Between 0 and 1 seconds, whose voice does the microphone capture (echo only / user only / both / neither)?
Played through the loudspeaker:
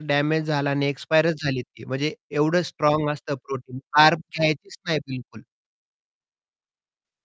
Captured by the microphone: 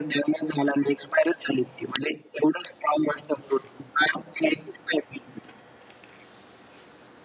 echo only